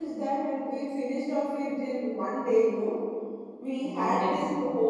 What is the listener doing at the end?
listening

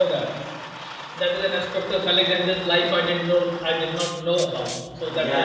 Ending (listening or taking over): taking over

